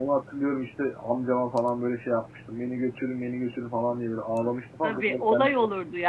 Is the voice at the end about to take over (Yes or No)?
Yes